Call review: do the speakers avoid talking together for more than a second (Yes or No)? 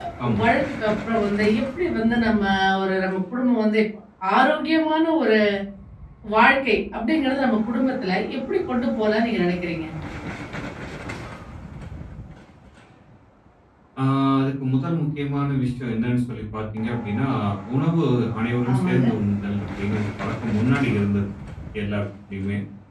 Yes